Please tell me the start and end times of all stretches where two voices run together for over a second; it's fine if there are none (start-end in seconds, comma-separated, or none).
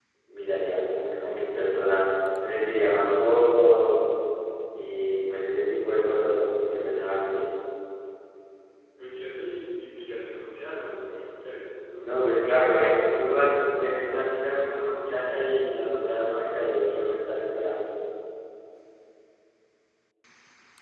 12.0-14.2